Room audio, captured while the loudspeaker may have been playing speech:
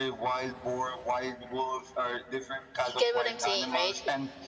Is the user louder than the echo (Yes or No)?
Yes